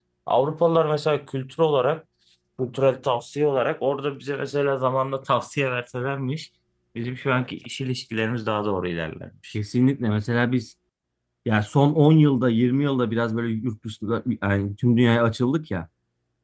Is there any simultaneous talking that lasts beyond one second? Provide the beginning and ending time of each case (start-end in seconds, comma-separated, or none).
none